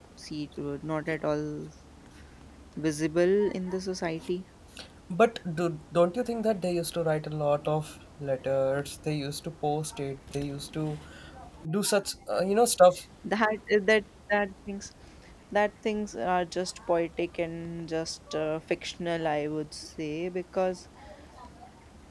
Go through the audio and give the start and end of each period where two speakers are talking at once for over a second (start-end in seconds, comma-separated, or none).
none